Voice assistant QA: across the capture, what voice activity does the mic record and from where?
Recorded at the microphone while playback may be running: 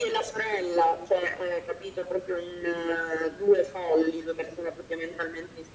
echo only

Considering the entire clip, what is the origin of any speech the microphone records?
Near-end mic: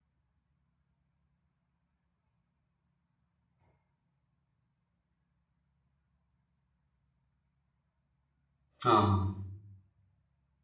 user only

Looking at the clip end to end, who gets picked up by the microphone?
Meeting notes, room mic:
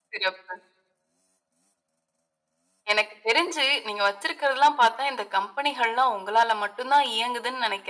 echo only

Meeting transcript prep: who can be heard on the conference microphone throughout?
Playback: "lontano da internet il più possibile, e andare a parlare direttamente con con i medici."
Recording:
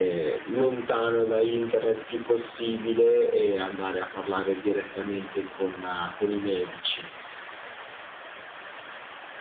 echo only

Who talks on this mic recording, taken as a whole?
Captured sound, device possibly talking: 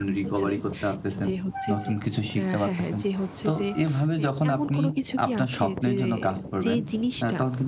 both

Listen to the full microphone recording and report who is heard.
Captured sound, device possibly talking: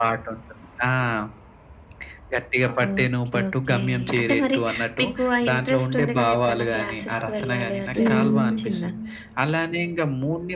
both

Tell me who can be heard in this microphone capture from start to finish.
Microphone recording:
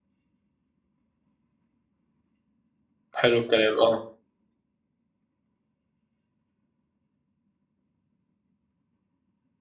user only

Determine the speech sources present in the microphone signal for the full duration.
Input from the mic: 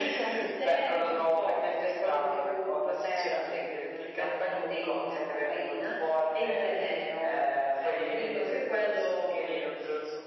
echo only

